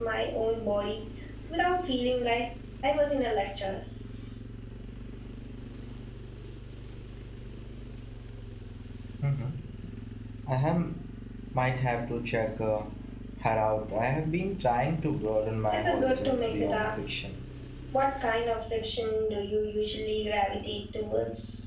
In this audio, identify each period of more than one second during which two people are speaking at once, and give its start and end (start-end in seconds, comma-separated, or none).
15.7-17.0